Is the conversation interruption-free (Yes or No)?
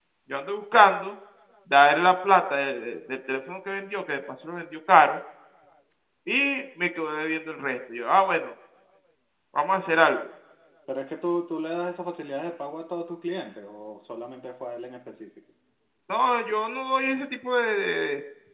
Yes